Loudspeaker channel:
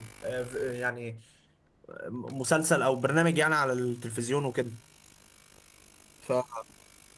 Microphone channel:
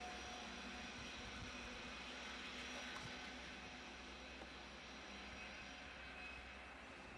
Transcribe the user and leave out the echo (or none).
none